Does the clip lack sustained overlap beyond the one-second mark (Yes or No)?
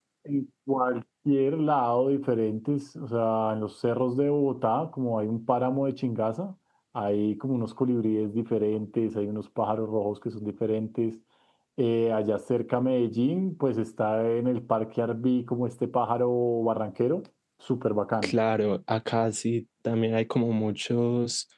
Yes